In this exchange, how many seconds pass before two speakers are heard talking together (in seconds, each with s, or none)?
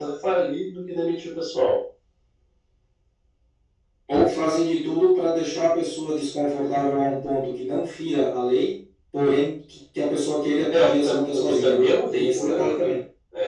10.7 s